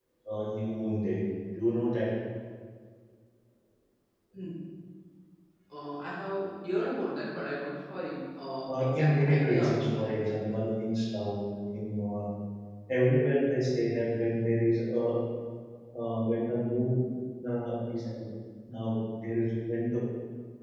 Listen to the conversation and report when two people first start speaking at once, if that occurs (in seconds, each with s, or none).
8.7 s